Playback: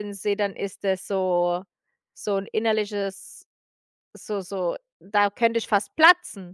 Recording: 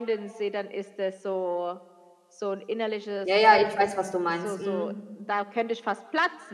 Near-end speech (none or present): present